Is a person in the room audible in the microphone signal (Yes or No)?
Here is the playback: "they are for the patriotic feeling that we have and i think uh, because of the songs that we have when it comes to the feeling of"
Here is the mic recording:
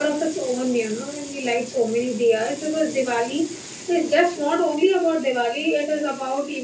Yes